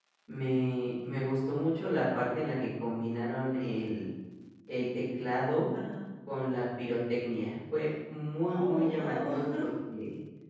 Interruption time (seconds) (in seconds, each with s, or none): 8.4 s